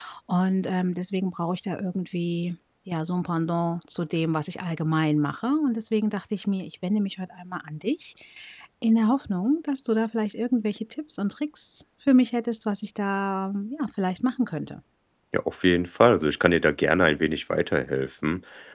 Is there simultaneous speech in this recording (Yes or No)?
No